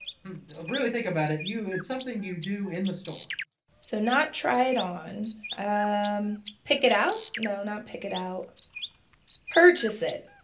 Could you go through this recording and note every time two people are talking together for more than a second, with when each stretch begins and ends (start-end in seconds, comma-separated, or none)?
none